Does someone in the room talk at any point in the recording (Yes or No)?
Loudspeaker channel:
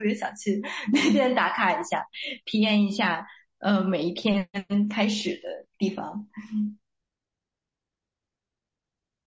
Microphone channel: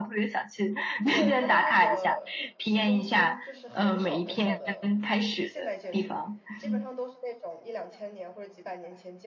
Yes